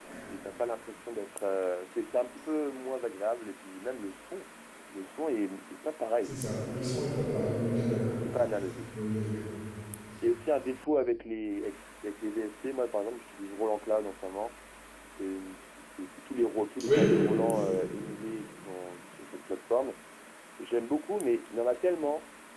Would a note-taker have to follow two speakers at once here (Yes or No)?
Yes